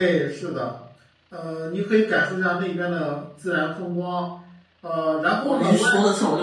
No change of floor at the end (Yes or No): No